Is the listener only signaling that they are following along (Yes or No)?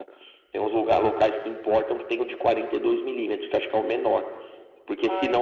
Yes